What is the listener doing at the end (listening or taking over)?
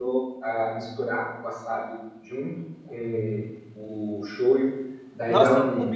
taking over